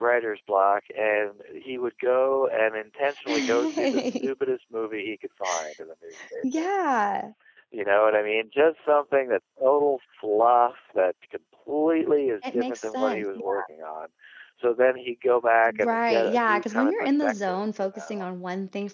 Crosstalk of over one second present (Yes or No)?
Yes